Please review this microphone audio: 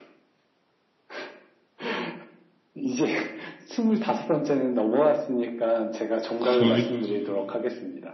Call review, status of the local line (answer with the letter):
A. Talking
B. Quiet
A